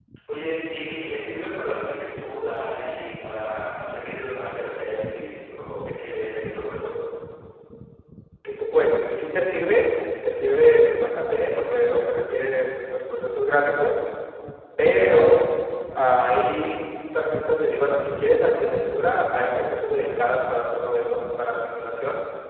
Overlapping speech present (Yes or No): No